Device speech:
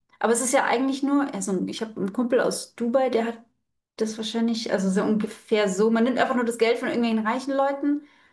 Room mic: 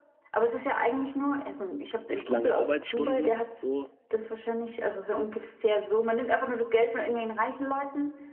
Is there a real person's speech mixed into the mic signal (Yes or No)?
Yes